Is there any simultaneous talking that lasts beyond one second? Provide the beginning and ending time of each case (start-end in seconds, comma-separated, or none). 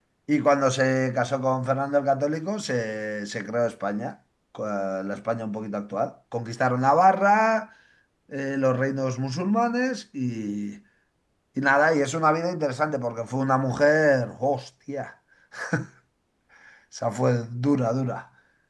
none